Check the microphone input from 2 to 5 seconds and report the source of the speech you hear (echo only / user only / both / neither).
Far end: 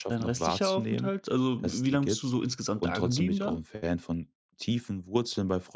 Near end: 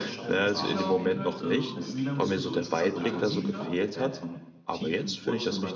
both